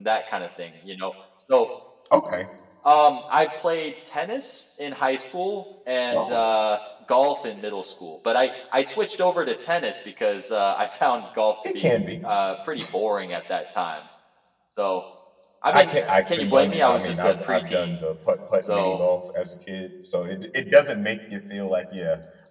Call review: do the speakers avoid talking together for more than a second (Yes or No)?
No